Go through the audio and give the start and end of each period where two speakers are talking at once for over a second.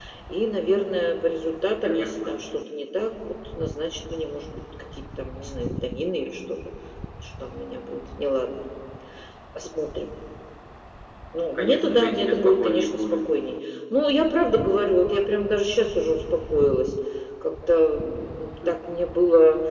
11.6-13.2

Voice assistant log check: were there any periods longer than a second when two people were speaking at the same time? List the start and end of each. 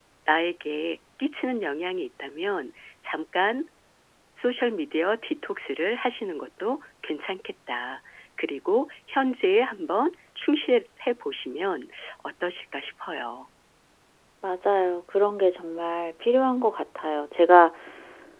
none

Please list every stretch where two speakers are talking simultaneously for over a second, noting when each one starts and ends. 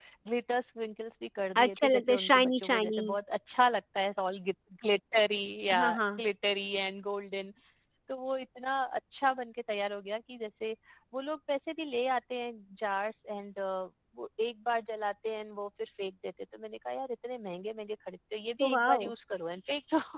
1.6-3.0

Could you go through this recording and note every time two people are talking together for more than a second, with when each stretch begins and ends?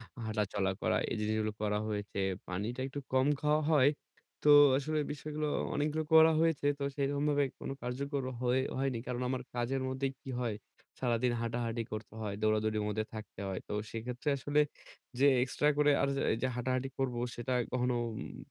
none

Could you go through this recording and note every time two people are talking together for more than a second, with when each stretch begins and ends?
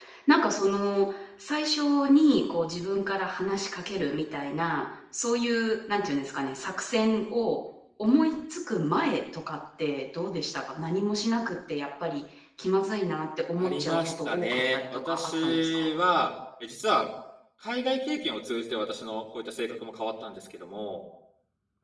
13.6-15.9

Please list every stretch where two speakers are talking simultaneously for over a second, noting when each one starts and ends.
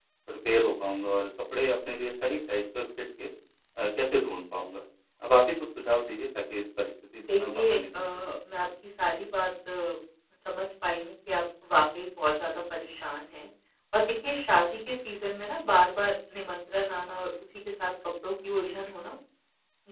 7.2-8.7

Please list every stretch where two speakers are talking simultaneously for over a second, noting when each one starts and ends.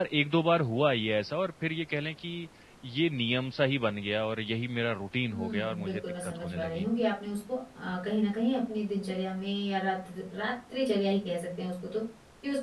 5.3-6.9

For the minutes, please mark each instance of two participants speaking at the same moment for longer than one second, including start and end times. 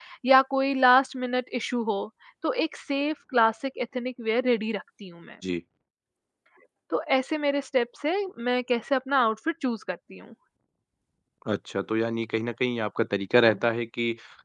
none

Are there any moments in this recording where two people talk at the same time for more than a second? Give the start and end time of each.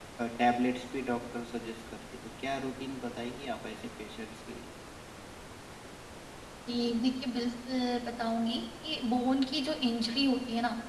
none

